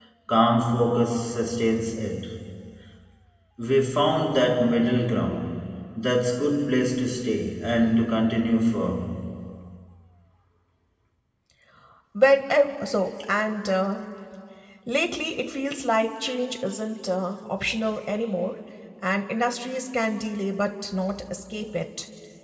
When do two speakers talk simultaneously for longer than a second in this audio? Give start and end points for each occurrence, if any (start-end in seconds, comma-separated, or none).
none